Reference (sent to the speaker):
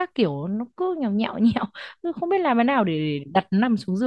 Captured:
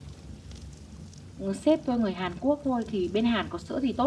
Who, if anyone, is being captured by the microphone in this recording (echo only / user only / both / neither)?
user only